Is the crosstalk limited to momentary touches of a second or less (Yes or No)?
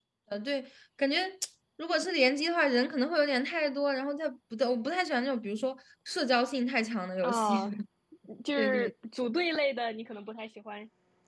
Yes